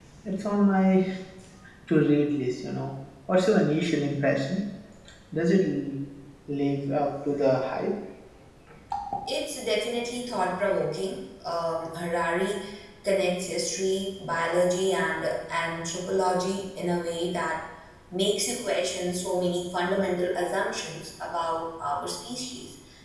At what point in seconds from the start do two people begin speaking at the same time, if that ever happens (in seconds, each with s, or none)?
none